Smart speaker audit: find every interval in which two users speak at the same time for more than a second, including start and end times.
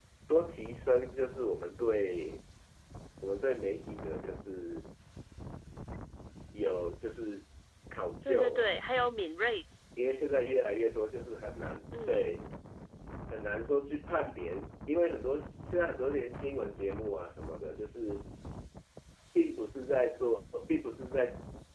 none

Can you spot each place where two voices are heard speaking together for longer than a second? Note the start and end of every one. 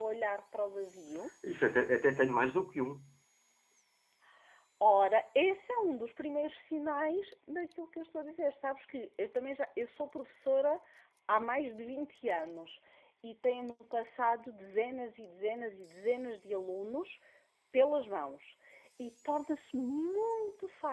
none

